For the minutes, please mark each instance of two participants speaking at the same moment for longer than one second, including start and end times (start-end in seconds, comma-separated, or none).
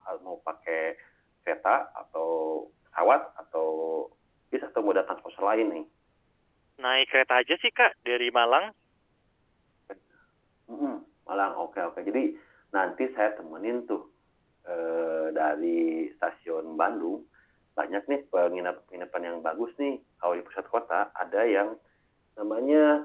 none